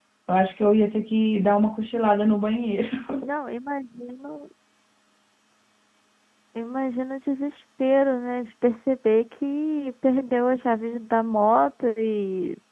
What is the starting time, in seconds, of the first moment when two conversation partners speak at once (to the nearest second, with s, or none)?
none